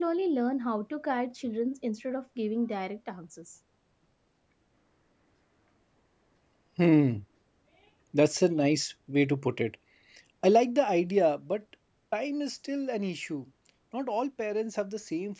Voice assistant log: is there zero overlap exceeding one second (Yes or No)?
Yes